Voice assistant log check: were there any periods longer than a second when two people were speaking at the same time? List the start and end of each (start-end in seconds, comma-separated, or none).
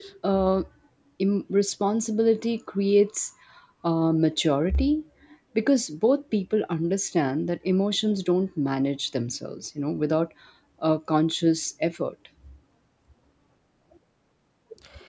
none